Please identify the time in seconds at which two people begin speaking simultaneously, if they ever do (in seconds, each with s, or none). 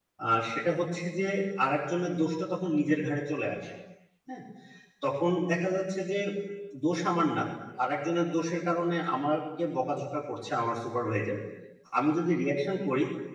none